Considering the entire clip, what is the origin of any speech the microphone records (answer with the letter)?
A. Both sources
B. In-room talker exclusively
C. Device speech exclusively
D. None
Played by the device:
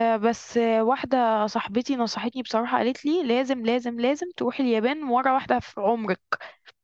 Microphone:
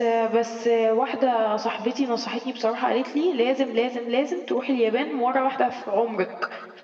C